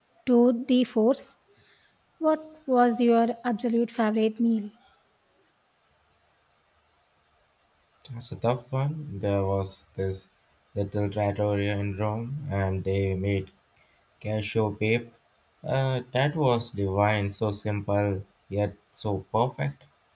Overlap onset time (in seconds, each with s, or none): none